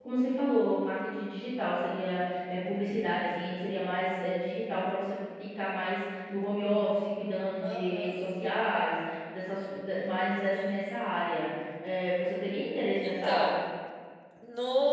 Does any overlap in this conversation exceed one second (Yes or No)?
No